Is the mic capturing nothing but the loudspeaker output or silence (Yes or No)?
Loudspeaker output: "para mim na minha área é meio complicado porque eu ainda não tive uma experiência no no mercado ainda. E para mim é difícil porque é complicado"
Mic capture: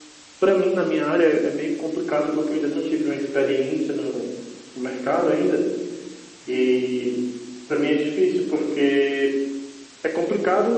Yes